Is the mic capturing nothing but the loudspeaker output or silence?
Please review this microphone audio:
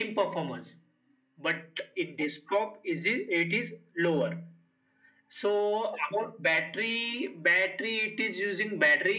Yes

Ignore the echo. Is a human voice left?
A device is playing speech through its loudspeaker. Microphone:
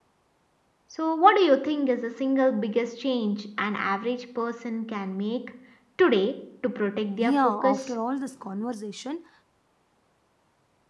Yes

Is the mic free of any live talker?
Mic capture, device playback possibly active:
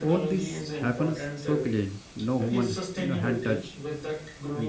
No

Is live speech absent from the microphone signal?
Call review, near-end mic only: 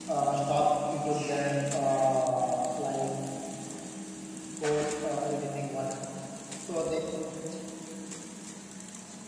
No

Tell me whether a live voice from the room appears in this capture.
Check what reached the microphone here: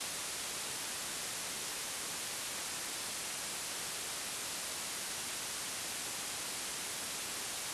No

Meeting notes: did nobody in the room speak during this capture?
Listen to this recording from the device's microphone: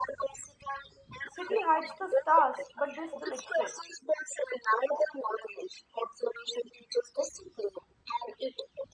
No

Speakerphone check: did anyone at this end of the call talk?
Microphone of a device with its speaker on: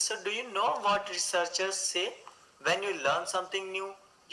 No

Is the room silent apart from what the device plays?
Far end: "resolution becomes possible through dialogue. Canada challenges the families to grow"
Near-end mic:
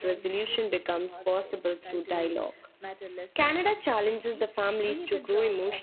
No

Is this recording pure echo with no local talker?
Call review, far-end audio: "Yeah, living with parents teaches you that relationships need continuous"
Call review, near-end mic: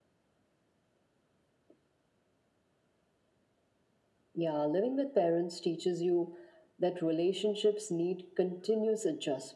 Yes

